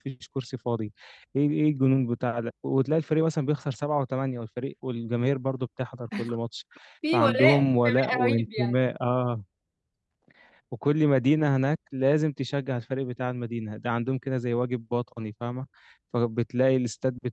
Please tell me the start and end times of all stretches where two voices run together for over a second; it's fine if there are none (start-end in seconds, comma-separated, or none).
7.1-8.8